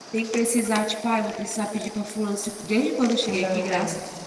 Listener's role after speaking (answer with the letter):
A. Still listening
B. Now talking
A